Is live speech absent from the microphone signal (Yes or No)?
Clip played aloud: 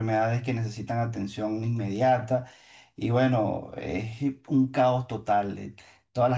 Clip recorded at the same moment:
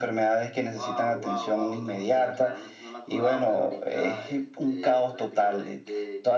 No